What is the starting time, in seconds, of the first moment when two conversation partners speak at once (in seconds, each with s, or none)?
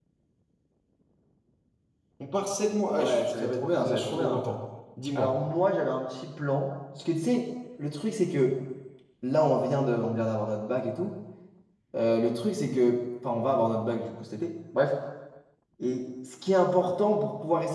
3.0 s